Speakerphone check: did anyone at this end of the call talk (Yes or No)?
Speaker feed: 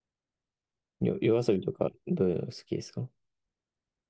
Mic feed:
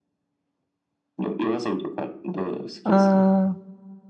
Yes